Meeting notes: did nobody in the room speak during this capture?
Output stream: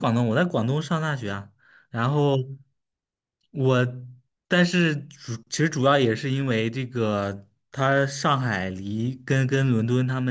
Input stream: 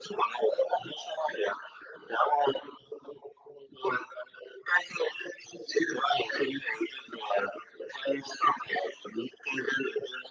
Yes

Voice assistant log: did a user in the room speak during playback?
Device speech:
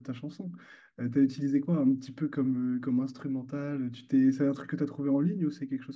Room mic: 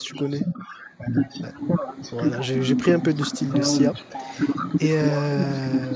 Yes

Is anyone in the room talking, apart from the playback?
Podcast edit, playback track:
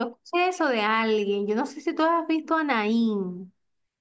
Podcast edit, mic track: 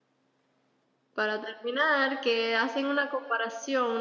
Yes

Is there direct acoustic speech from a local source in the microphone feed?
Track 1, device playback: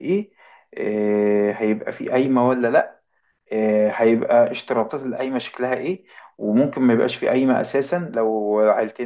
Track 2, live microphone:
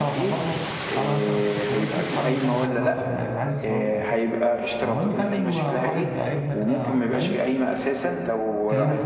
Yes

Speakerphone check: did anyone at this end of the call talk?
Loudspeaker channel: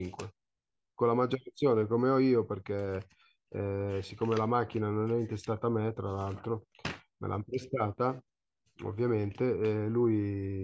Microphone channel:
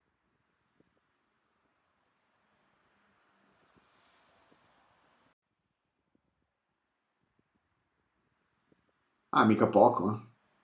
Yes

